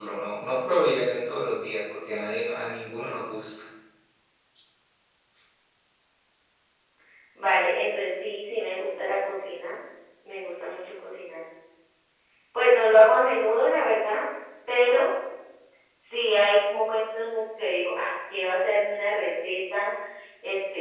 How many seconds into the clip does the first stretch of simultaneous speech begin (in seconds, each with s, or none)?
none